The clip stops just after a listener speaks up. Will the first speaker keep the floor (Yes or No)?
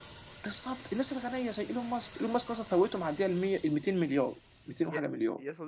No